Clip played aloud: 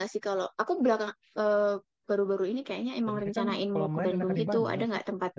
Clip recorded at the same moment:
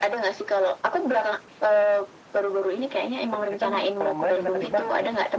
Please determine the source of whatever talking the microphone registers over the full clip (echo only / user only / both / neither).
echo only